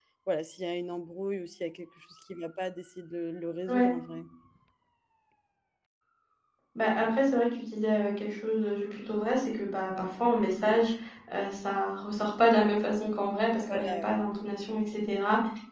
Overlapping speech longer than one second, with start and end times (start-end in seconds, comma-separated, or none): none